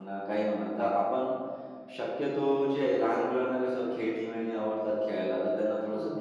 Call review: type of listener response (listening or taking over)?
listening